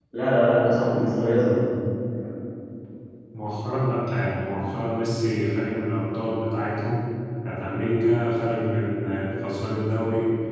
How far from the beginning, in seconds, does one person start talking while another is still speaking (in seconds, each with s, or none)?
none